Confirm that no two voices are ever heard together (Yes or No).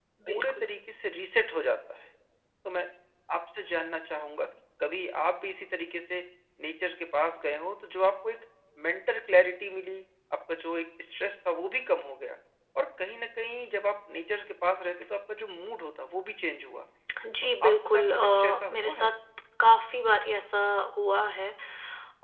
No